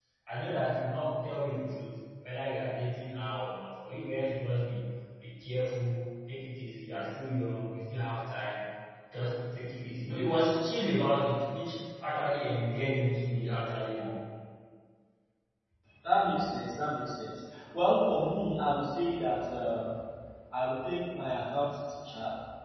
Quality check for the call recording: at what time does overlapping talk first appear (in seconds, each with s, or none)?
none